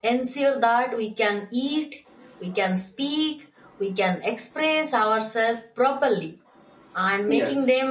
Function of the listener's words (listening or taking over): listening